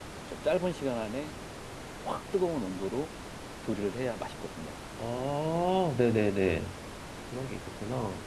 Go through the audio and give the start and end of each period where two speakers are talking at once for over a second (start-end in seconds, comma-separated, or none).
none